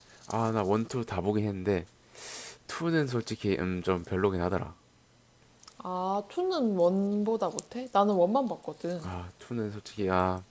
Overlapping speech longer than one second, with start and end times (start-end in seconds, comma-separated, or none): none